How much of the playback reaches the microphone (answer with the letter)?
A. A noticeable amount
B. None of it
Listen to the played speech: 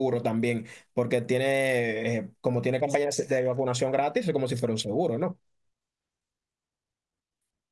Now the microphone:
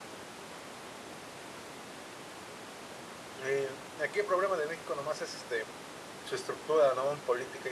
B